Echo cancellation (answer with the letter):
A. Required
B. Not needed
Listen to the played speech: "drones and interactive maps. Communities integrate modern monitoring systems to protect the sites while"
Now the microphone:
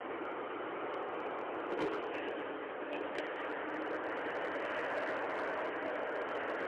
B